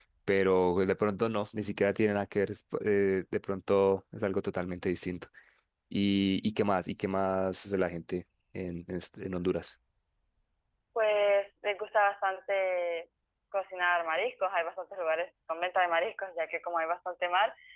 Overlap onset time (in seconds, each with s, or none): none